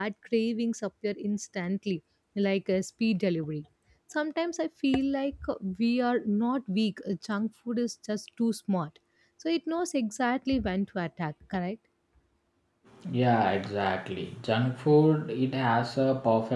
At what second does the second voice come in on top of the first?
none

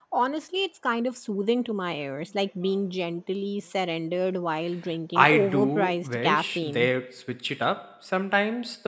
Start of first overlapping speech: 5.2 s

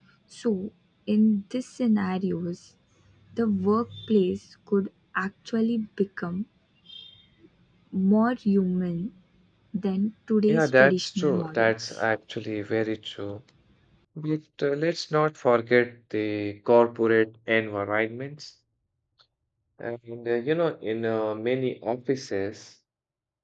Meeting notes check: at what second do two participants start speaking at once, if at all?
10.5 s

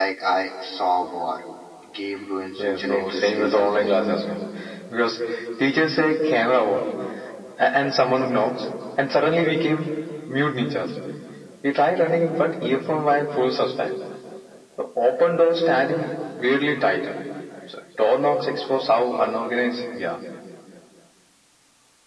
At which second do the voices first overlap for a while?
2.6 s

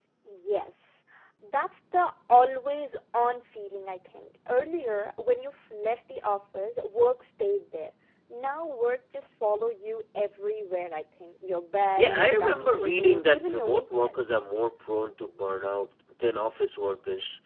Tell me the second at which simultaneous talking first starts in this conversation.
12.0 s

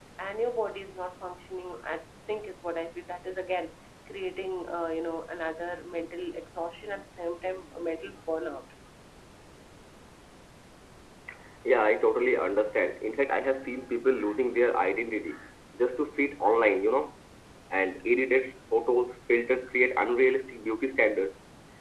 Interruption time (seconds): none

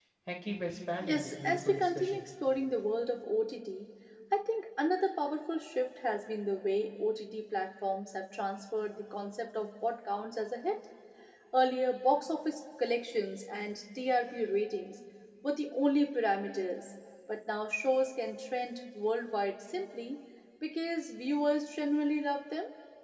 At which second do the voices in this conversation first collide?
1.0 s

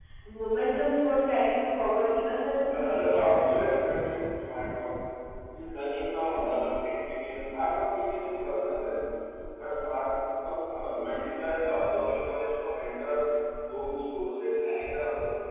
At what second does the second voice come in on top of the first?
2.7 s

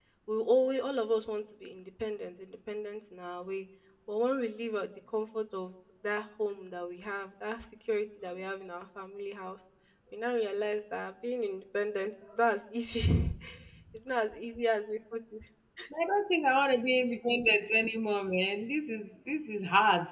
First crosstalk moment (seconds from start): none

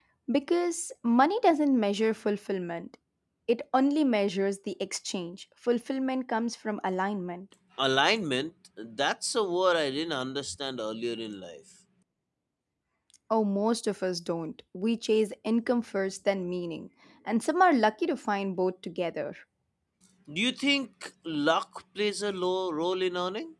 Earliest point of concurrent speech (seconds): none

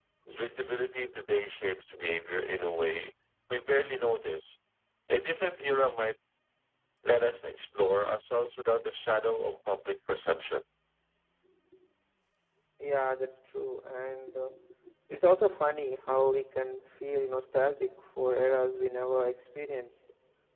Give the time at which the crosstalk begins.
none

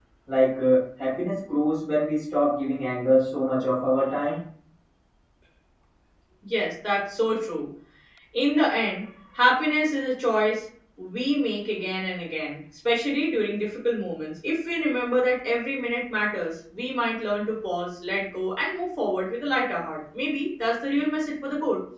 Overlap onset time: none

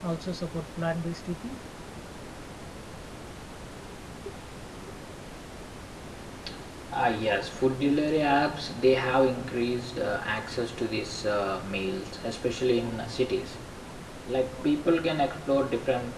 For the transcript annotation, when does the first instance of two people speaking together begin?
none

